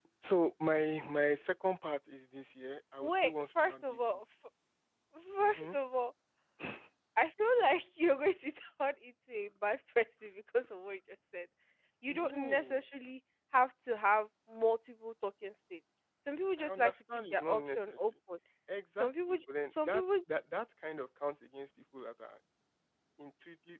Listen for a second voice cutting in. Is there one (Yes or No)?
Yes